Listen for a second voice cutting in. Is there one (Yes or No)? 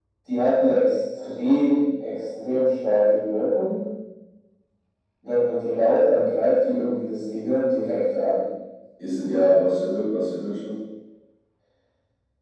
No